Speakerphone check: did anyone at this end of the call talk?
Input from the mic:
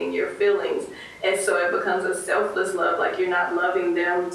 No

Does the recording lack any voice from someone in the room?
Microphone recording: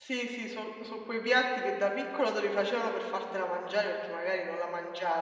No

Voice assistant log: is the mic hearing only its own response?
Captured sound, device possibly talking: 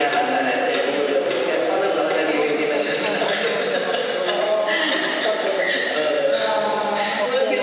No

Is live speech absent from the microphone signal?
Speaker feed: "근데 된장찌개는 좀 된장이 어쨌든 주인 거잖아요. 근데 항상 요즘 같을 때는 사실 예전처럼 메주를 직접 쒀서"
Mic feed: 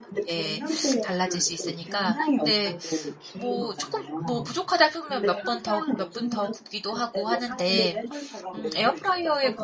No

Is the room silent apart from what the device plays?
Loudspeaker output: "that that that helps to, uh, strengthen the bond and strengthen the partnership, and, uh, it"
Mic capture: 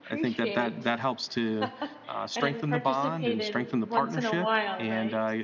No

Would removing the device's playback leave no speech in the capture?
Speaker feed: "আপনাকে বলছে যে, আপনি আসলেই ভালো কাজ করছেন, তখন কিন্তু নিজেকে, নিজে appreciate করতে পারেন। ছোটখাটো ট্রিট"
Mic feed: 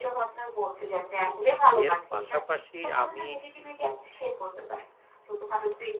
No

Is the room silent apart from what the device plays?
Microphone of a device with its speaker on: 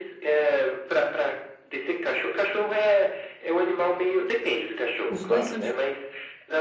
No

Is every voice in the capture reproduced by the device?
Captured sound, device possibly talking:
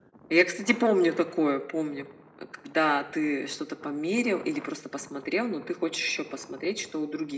Yes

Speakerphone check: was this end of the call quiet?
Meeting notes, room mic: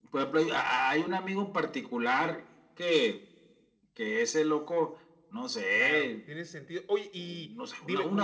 No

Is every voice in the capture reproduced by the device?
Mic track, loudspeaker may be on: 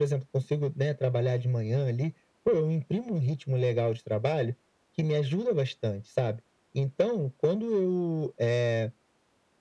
Yes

